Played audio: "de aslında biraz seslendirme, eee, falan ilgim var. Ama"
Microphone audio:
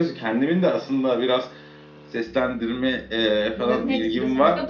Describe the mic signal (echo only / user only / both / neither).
both